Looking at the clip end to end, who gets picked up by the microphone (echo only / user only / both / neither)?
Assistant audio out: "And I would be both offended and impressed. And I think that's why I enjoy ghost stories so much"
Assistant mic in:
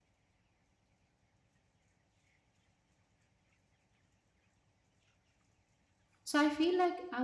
user only